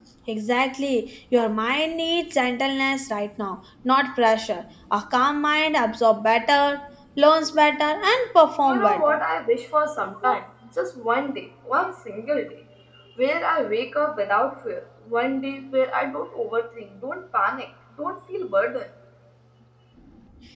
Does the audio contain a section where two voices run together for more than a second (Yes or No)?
No